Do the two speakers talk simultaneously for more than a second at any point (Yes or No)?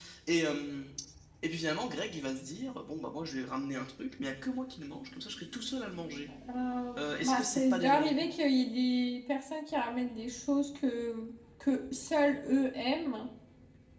Yes